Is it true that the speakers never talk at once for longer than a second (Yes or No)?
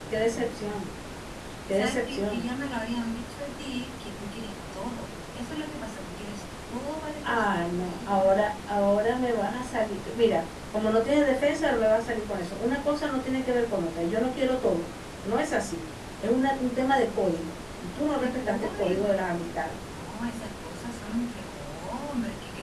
No